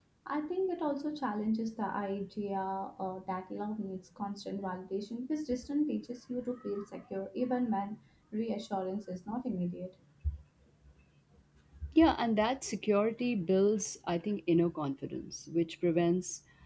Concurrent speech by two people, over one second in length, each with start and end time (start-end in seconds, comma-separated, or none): none